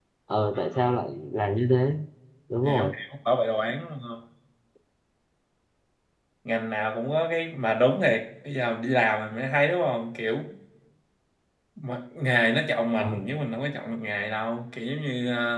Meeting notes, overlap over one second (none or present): none